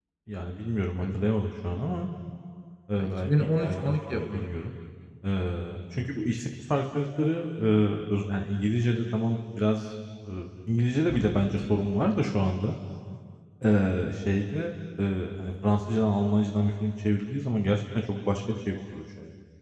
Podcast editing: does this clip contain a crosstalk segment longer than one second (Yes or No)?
Yes